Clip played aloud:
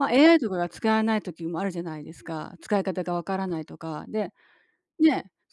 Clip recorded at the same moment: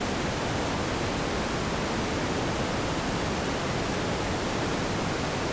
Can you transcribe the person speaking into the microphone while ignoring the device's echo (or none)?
none